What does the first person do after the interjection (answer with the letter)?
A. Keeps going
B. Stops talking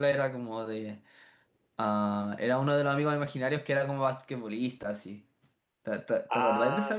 B